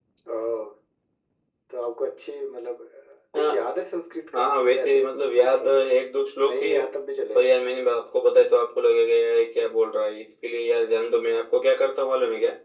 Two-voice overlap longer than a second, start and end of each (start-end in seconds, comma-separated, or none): 4.3-5.8